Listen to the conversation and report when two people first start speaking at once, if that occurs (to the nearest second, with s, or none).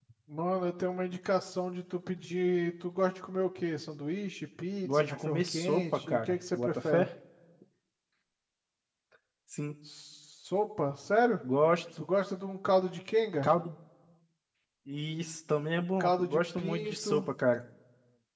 5 s